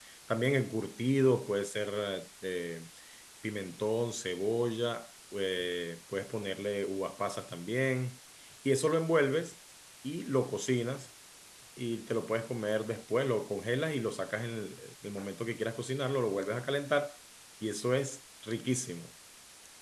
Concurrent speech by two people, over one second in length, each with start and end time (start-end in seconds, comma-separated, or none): none